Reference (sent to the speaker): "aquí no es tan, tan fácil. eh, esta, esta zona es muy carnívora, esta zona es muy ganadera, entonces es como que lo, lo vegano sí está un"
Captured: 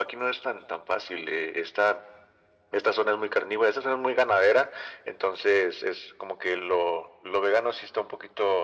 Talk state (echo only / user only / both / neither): echo only